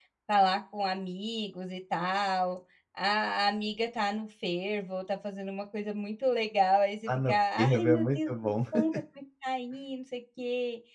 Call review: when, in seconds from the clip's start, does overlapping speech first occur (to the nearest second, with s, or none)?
7 s